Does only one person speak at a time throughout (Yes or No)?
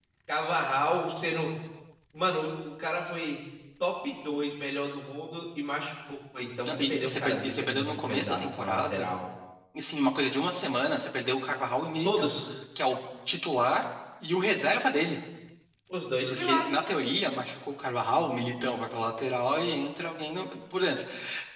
No